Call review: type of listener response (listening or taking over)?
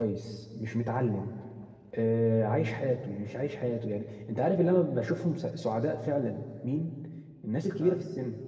listening